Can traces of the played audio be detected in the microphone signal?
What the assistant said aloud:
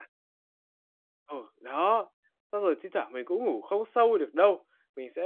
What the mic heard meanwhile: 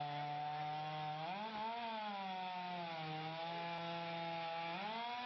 No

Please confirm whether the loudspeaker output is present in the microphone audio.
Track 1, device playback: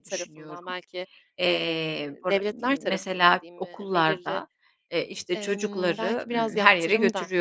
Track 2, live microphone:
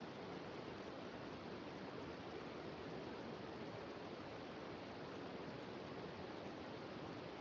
No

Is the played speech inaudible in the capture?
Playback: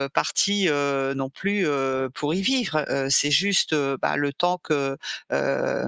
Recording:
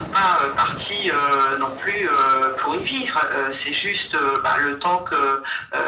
No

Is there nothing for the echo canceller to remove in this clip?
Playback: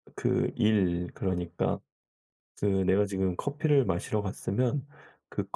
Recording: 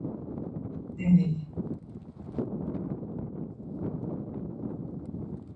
Yes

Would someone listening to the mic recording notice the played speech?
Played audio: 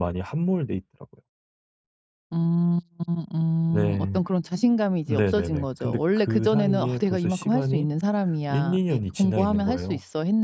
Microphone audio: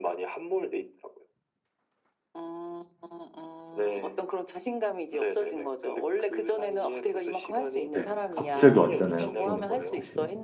Yes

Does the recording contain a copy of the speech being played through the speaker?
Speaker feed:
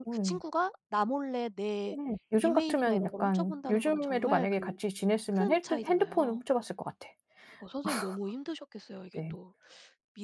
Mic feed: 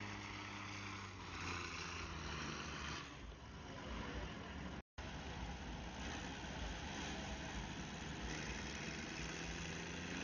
No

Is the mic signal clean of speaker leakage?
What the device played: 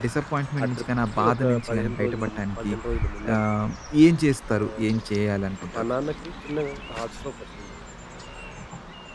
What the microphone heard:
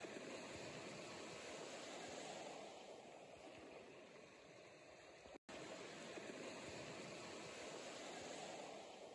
Yes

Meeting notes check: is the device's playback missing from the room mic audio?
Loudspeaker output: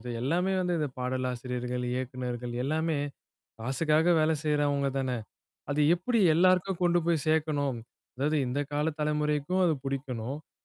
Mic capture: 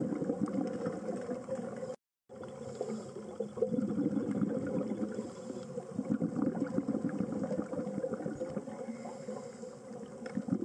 Yes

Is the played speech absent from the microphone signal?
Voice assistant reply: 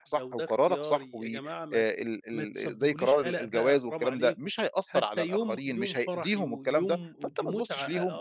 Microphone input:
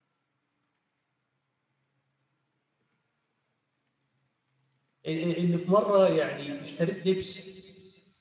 Yes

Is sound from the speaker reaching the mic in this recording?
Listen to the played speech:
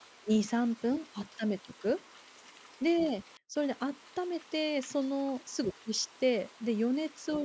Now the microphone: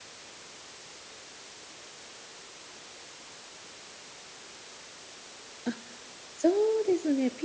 No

